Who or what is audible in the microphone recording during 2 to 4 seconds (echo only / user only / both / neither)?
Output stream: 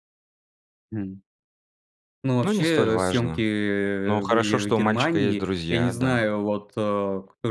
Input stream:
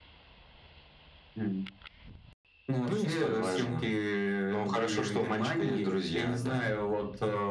echo only